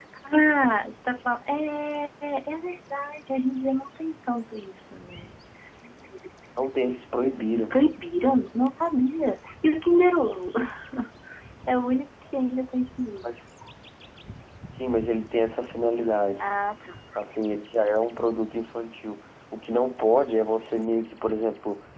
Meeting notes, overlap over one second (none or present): none